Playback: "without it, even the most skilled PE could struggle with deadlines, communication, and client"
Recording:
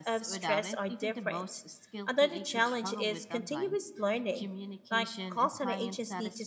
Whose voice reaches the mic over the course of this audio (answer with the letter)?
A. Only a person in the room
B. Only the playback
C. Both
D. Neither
C